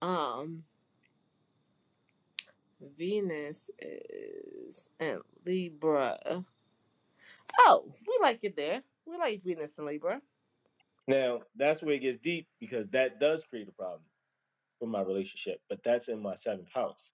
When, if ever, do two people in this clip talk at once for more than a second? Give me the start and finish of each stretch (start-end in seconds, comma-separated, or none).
none